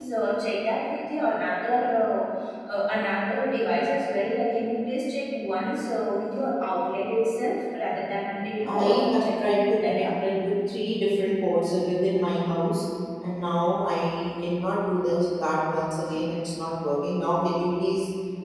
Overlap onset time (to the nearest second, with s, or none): 9 s